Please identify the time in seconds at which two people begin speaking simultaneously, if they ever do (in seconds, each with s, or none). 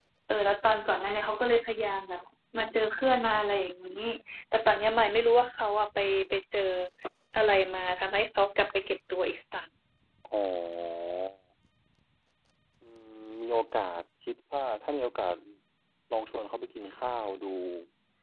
none